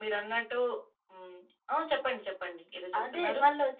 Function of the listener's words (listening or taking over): taking over